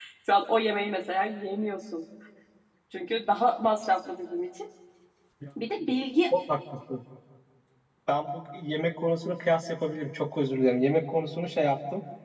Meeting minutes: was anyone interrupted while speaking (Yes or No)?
No